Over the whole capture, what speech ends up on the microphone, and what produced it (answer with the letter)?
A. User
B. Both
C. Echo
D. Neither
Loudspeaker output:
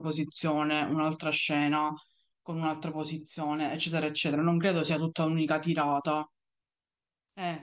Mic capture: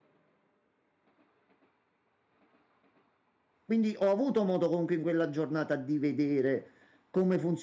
A